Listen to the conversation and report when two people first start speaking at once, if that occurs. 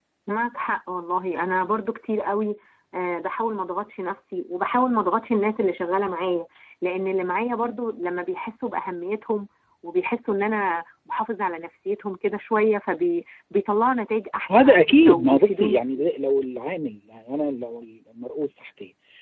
14.5 s

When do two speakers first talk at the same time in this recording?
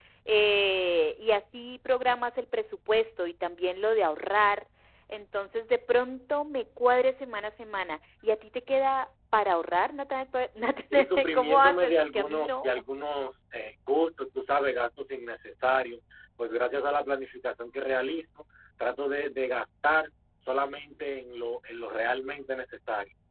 10.8 s

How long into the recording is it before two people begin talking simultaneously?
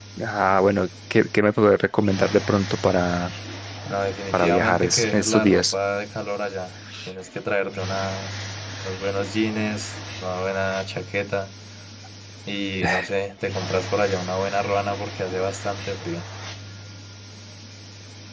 4.3 s

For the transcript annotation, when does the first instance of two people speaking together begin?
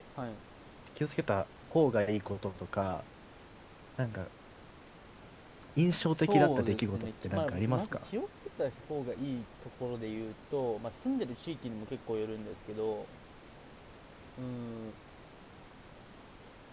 6.2 s

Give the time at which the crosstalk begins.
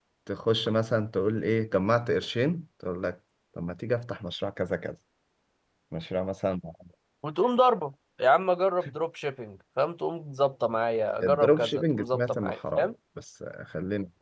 11.2 s

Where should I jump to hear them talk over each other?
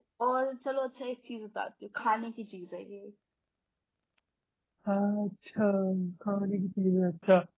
none

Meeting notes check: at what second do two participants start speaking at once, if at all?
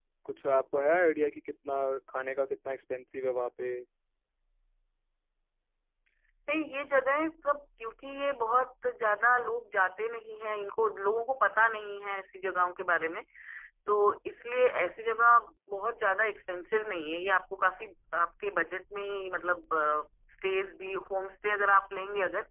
none

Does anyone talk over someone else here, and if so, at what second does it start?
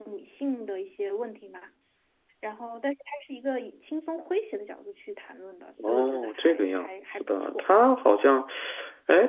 5.8 s

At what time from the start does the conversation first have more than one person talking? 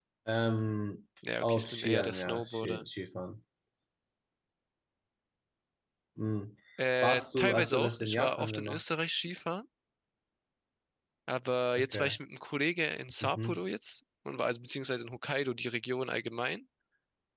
1.4 s

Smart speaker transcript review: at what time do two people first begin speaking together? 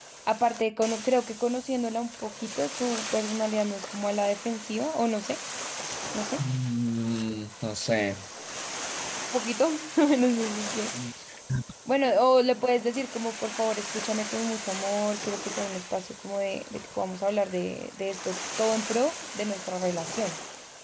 none

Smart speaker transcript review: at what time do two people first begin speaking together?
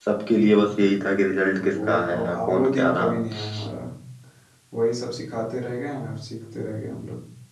1.5 s

